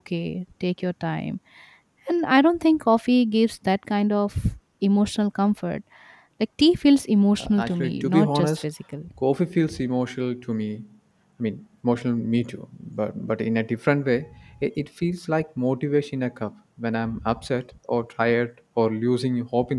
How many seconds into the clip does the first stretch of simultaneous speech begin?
7.4 s

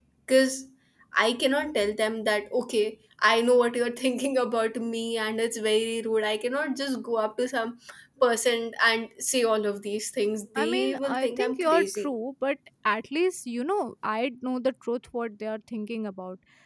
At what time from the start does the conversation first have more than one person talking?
10.6 s

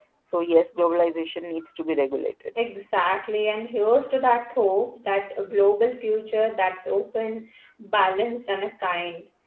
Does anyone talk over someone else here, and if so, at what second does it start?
none

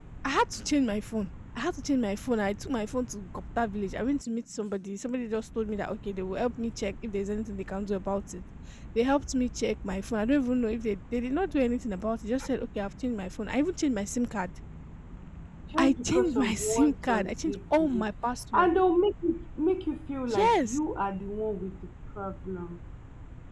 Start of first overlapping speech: 15.8 s

